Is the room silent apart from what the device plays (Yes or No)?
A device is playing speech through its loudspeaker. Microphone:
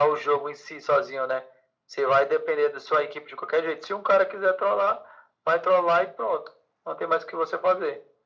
Yes